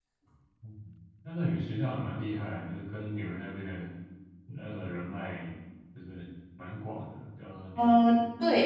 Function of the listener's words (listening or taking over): taking over